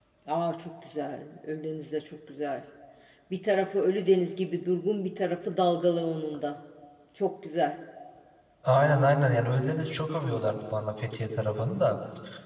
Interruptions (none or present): none